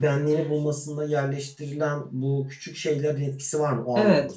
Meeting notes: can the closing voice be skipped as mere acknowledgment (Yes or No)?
No